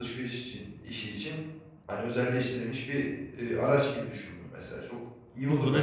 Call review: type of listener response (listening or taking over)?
taking over